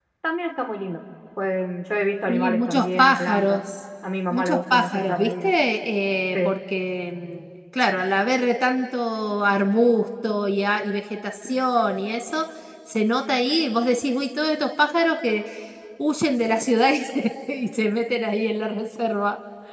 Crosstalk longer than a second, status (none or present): present